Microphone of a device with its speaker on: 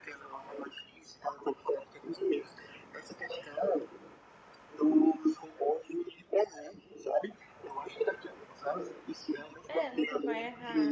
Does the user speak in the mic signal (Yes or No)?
Yes